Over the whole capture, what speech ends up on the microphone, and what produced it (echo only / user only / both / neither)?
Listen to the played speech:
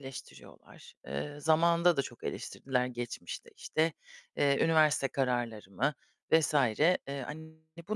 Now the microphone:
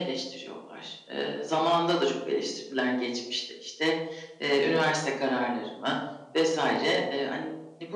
echo only